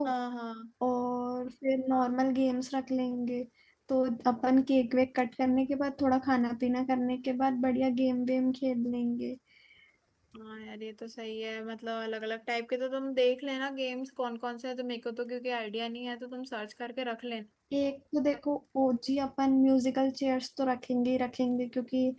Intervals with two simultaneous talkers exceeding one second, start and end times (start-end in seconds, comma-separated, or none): none